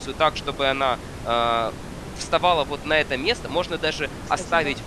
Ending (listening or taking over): listening